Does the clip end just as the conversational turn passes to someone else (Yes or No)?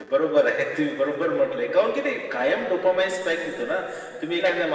No